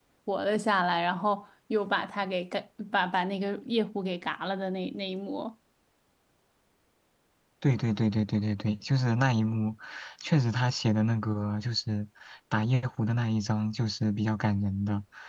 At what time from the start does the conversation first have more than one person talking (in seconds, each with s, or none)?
none